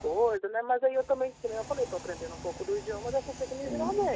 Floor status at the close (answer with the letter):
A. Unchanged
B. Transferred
B